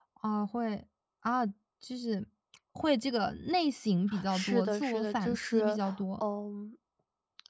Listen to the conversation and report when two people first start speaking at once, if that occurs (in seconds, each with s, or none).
4.1 s